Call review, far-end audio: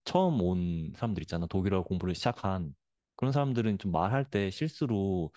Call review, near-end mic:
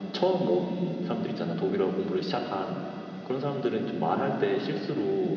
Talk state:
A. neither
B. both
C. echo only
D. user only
C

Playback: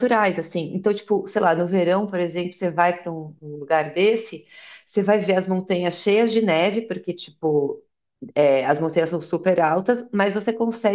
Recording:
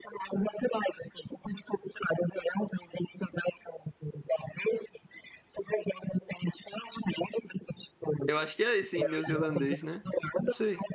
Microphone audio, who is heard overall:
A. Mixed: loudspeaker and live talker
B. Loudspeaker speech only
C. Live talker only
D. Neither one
A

